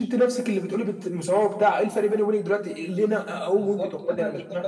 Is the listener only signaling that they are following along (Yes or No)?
No